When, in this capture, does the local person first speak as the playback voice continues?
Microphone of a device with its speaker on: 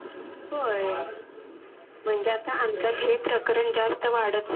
none

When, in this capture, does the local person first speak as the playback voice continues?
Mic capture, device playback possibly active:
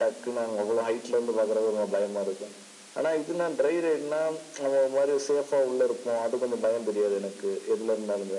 none

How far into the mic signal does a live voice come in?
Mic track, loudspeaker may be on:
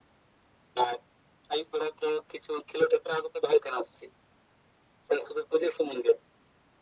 none

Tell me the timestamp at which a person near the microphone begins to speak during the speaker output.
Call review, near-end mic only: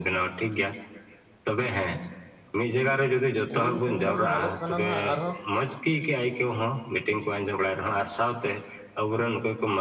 3.5 s

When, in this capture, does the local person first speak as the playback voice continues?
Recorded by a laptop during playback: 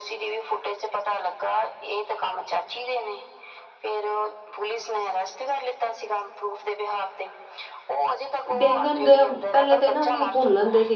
8.6 s

